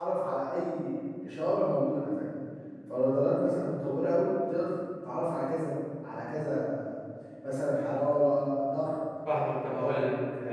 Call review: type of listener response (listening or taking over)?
taking over